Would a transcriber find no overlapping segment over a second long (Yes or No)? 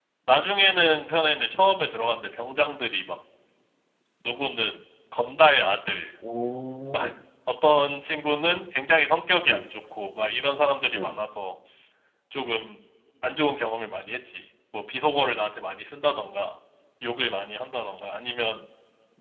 Yes